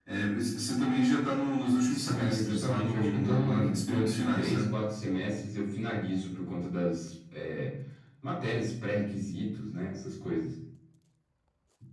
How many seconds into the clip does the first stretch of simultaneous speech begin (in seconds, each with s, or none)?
1.8 s